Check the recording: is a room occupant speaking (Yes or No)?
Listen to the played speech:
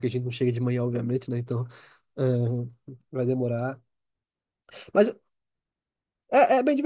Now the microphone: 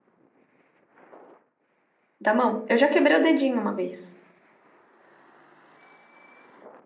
Yes